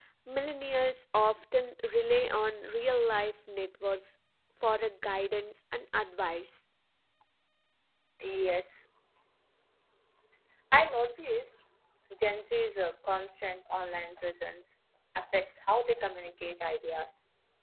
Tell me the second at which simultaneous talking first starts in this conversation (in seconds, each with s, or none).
none